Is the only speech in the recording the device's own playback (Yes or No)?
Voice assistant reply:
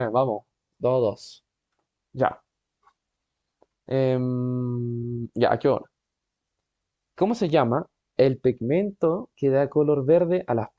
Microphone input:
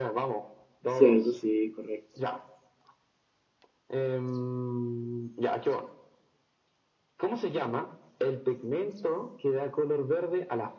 No